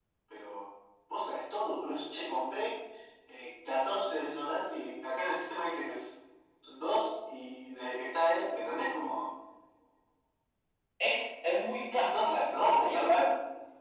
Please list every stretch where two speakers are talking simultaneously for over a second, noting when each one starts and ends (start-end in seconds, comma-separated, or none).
11.9-13.2